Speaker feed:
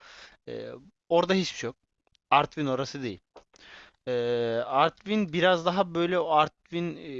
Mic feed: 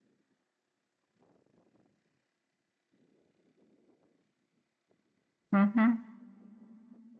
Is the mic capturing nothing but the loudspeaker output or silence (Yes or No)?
No